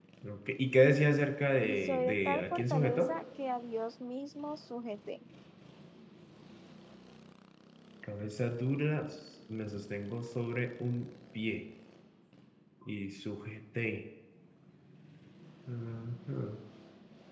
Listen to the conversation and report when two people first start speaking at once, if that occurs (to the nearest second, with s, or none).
2 s